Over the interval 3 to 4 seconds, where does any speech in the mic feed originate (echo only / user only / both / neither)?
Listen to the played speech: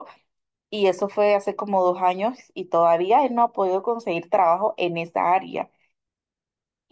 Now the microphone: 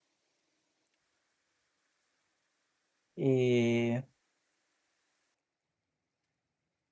user only